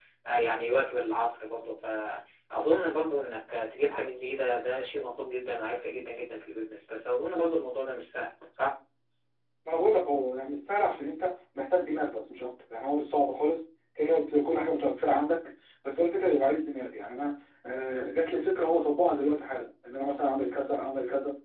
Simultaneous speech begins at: none

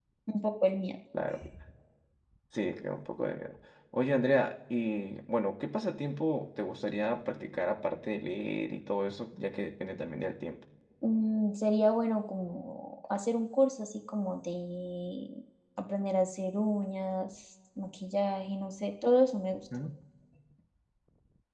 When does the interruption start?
none

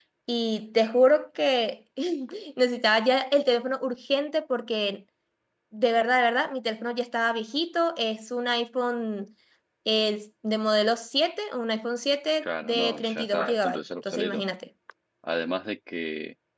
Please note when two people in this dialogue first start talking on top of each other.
12.4 s

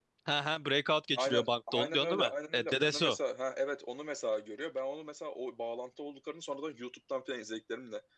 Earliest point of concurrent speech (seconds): 1.1 s

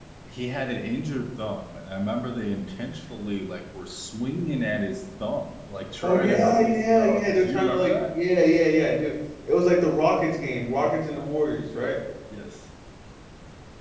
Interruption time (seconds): 6.0 s

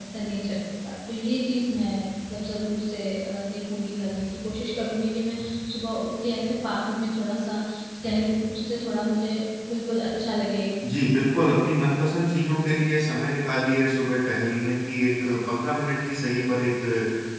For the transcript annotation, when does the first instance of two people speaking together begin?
none

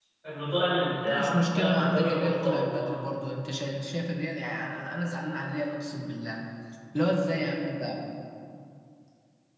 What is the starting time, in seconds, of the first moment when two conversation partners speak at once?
1.1 s

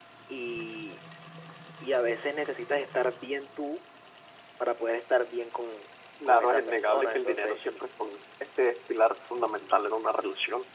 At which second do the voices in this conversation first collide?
6.2 s

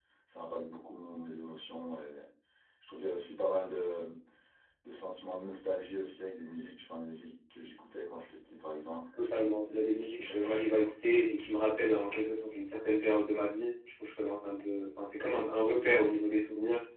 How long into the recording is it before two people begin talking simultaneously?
9.1 s

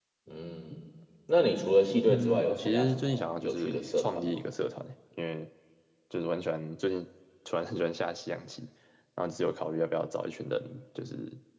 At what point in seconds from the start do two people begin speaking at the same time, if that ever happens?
2.1 s

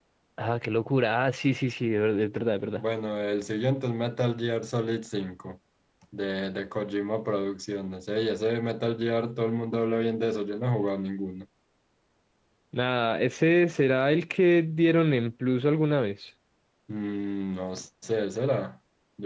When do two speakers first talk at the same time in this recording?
none

